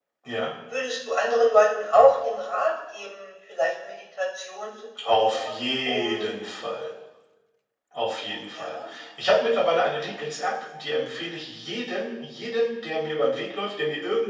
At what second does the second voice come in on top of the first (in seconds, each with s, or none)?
5.2 s